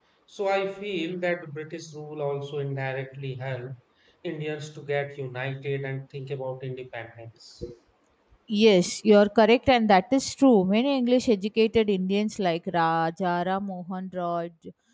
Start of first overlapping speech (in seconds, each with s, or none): none